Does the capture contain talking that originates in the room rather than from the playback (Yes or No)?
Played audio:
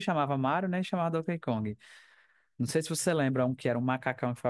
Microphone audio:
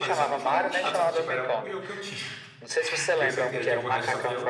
Yes